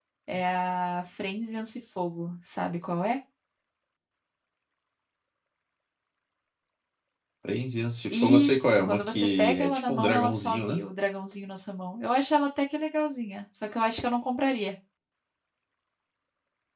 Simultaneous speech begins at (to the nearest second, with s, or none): 8 s